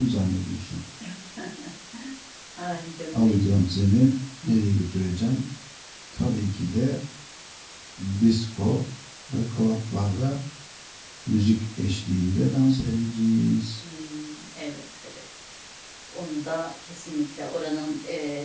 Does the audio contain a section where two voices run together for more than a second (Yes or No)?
No